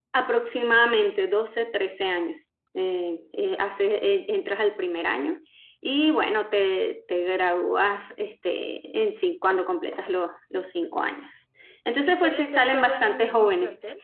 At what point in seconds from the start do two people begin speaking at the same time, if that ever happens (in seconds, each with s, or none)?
12.0 s